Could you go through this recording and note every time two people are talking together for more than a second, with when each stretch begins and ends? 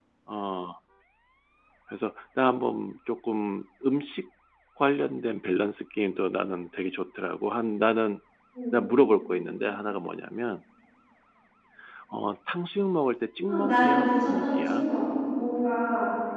13.4-14.8

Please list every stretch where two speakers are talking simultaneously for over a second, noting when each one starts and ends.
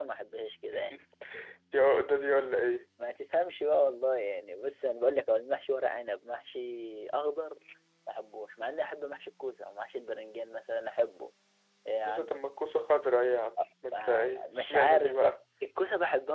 13.9-15.4

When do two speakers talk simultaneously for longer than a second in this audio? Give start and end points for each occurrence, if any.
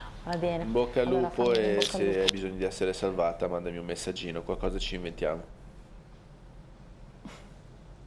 1.1-2.2

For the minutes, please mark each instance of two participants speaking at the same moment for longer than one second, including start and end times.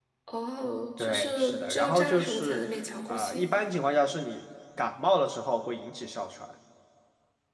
1.0-2.6

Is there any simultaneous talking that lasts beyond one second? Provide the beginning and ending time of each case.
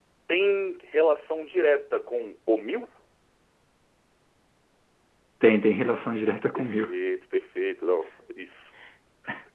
none

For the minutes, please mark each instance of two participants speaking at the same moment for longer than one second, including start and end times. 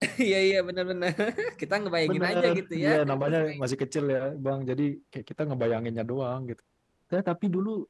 2.1-3.6

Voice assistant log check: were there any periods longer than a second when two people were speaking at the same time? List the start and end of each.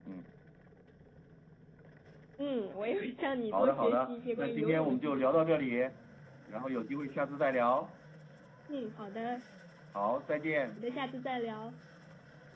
3.5-5.4

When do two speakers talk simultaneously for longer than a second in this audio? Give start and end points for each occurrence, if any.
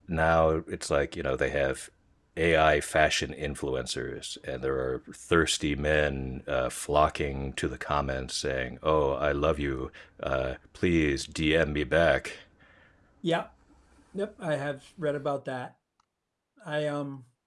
none

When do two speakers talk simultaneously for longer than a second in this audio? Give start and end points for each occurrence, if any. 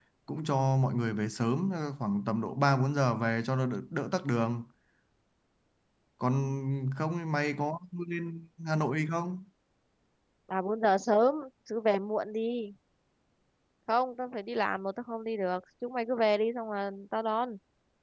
none

